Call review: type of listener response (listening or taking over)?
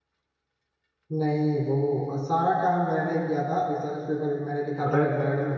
taking over